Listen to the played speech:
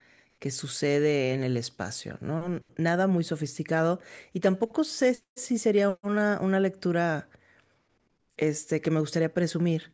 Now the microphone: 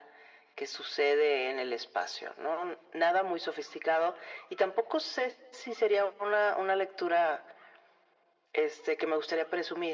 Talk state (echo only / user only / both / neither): echo only